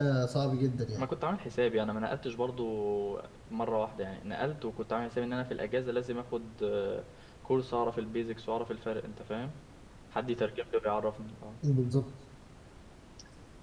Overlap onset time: none

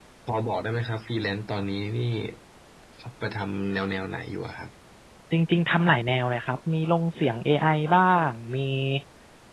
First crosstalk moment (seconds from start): none

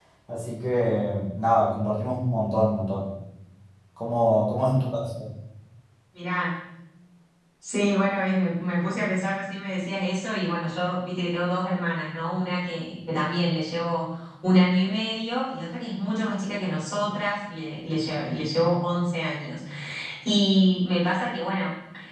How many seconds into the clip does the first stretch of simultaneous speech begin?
none

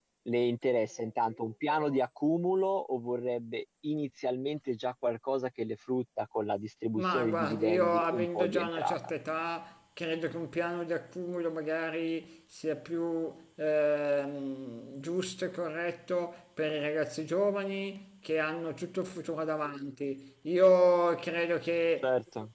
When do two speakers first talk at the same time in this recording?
7.0 s

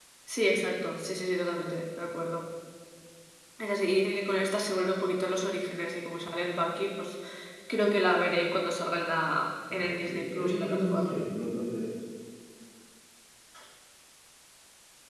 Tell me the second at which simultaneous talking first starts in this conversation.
9.6 s

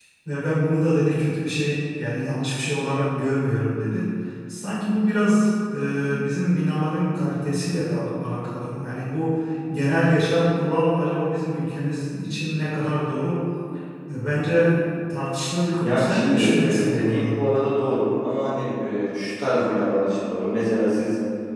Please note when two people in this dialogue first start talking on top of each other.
15.8 s

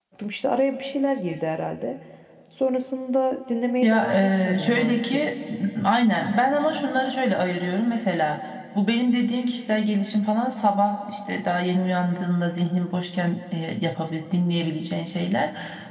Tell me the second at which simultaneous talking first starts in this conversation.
3.8 s

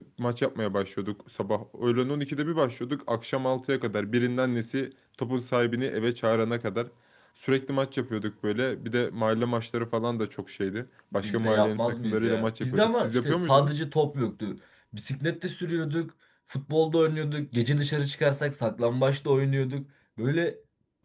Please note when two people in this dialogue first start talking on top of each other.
11.1 s

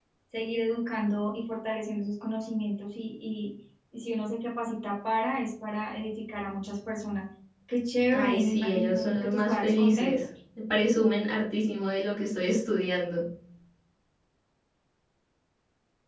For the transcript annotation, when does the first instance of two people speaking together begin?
8.1 s

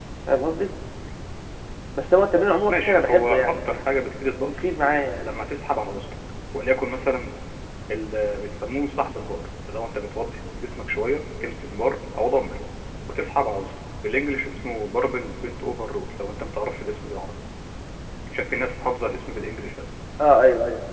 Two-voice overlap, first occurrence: 2.7 s

